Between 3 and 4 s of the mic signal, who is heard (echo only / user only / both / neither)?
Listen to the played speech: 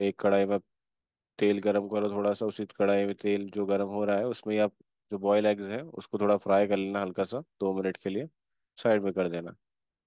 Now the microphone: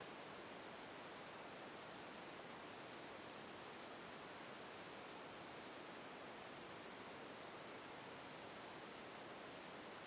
neither